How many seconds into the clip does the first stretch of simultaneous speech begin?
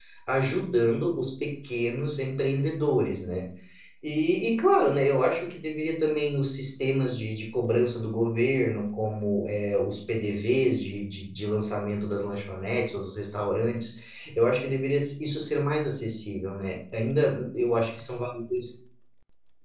none

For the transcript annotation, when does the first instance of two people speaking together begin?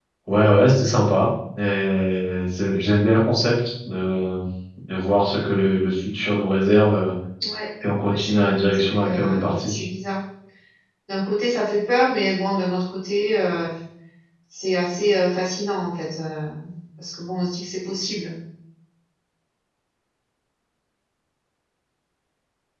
8 s

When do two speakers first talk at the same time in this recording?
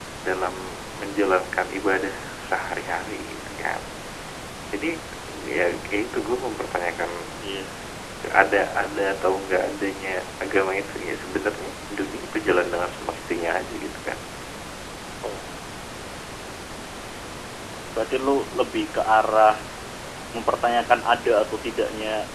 none

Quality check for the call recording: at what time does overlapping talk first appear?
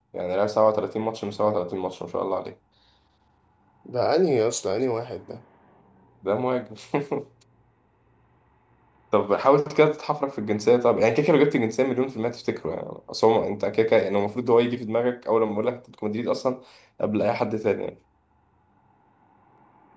none

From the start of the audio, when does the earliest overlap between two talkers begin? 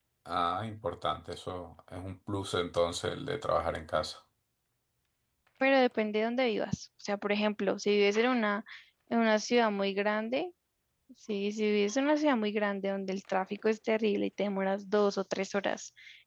none

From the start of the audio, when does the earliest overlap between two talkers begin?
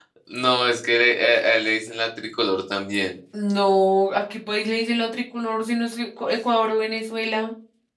none

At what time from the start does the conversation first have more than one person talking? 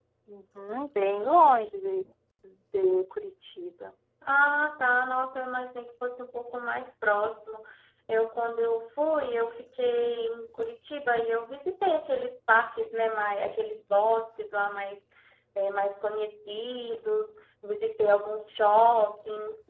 none

